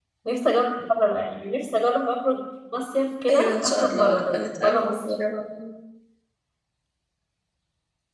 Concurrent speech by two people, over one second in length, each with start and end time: 3.3-5.0

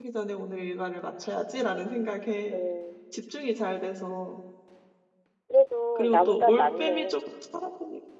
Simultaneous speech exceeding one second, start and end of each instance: 6.0-7.2

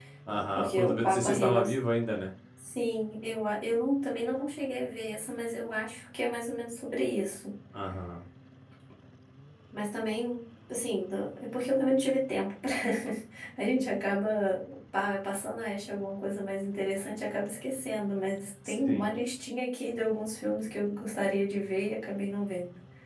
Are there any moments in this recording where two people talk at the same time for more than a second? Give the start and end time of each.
0.6-1.8

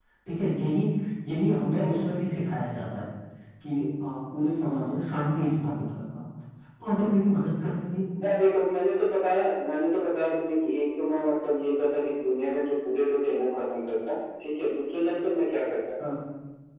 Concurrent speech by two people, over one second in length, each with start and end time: none

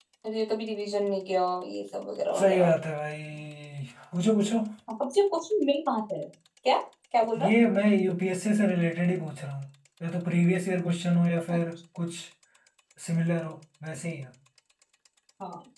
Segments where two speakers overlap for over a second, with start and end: none

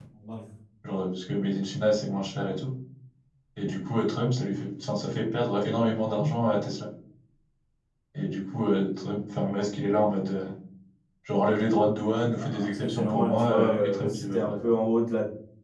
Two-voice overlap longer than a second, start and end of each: 12.4-14.7

